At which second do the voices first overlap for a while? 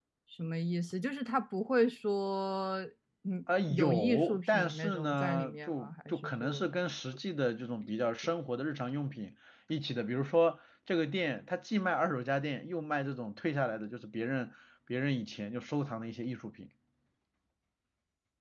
3.7 s

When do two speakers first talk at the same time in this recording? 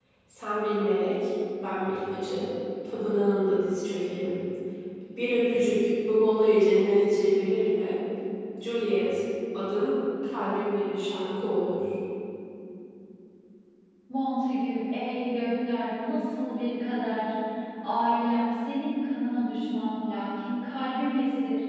none

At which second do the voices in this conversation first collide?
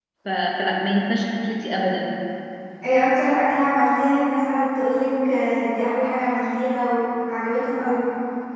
none

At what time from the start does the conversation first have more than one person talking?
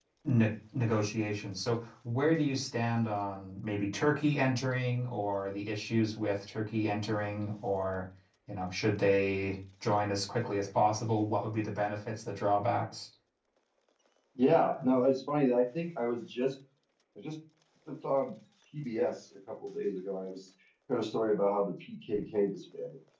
none

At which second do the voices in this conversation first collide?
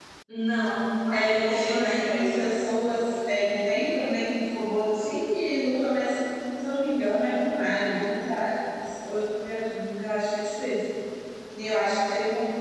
1.1 s

